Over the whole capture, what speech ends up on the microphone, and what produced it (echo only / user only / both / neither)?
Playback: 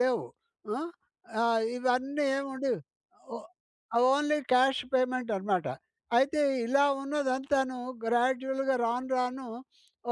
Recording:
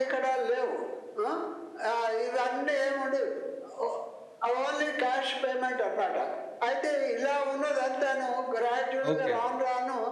both